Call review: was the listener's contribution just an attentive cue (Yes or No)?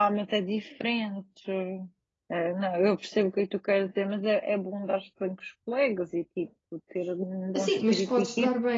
No